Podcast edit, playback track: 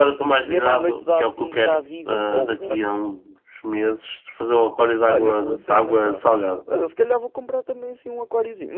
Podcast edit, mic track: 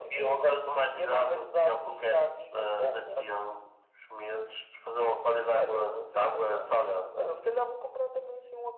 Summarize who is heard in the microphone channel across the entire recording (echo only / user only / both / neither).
echo only